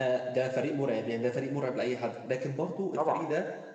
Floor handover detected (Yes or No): No